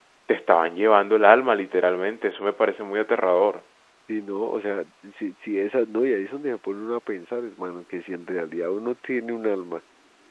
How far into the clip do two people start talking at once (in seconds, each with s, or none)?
none